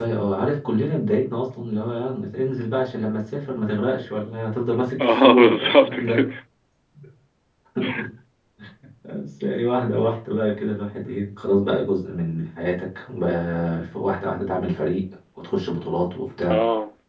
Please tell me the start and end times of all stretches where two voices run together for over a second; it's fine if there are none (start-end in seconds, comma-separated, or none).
5.0-6.3